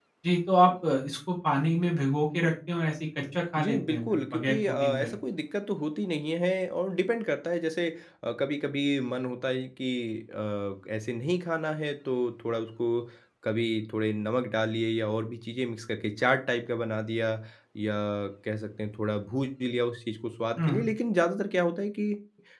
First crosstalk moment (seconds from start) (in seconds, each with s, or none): 3.6 s